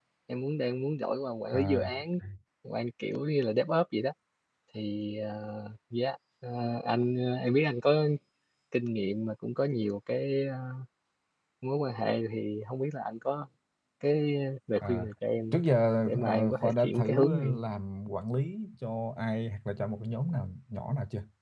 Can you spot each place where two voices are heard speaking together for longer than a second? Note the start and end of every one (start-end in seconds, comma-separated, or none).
16.1-17.6